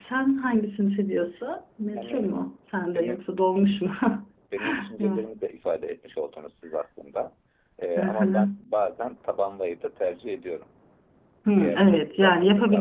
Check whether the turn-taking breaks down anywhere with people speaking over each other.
Yes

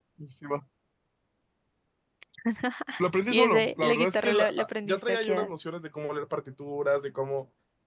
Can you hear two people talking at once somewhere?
Yes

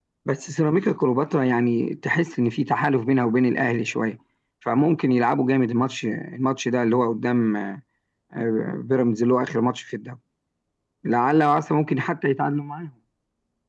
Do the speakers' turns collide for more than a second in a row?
No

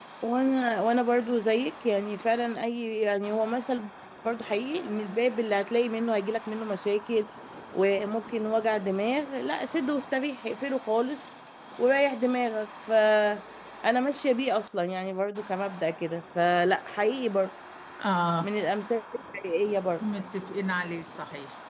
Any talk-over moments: No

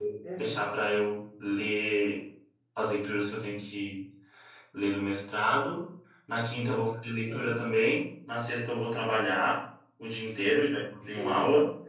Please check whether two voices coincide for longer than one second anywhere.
No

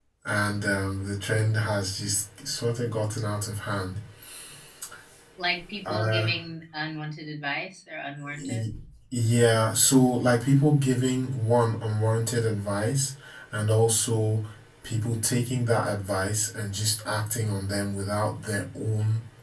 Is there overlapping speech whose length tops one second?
No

